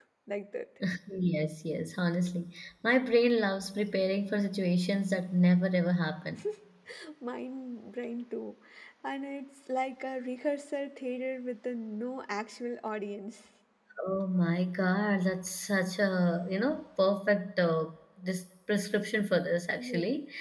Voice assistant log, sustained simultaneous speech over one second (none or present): none